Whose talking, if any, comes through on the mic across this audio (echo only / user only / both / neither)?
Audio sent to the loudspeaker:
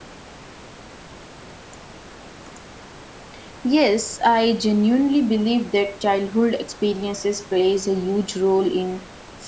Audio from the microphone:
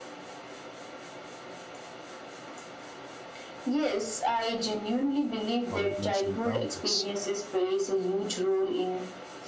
both